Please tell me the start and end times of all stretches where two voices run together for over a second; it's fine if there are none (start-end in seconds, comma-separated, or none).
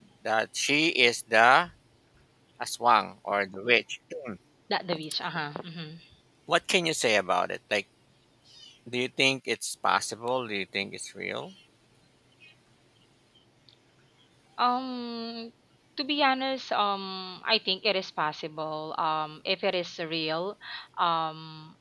none